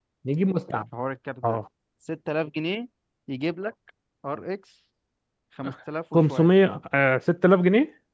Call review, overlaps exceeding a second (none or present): none